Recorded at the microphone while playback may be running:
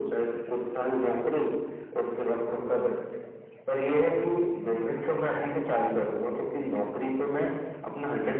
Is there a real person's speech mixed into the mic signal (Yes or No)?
No